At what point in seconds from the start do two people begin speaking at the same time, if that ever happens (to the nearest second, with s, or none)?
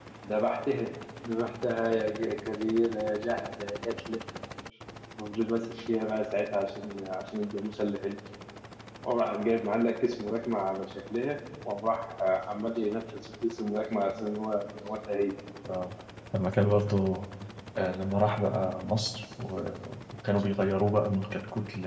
none